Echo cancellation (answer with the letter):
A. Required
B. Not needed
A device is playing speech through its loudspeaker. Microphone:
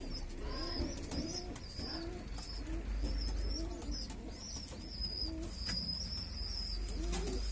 B